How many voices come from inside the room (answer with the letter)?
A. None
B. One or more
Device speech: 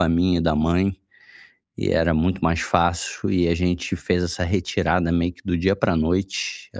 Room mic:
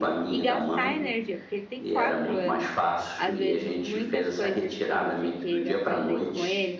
B